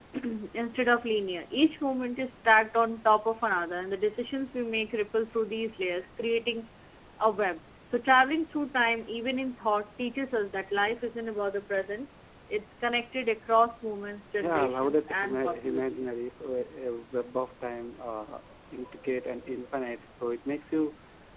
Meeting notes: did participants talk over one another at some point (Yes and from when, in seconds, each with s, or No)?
Yes, from 14.4 s